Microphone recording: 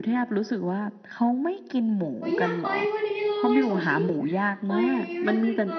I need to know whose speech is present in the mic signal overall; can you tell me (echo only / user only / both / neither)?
both